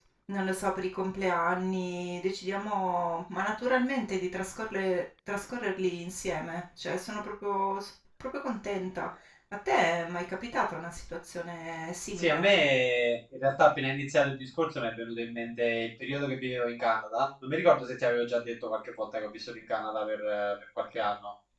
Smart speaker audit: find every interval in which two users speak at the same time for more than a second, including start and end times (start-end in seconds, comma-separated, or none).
none